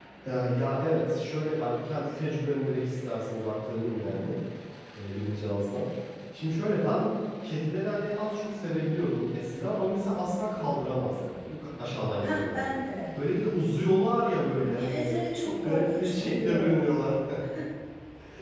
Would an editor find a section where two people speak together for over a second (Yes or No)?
Yes